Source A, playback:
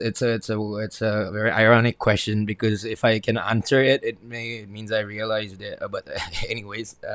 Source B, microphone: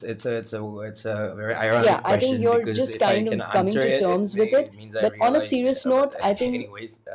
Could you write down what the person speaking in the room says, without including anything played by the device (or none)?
yeah, I think you're just kind of coming to terms with it. But on a serious note, I think